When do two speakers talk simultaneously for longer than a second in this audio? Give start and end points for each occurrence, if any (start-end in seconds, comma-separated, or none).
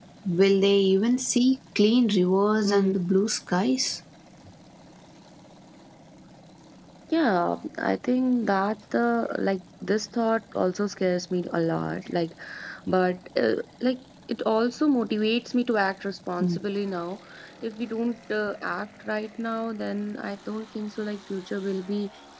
none